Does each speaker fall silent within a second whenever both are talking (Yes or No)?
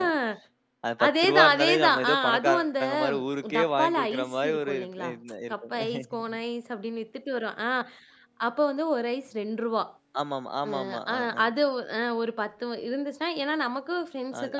No